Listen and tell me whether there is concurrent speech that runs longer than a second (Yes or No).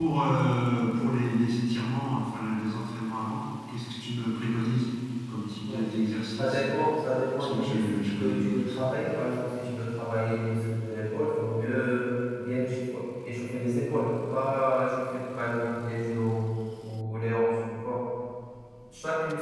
Yes